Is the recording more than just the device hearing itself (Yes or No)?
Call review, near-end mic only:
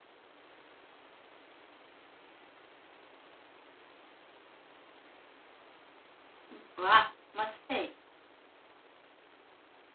Yes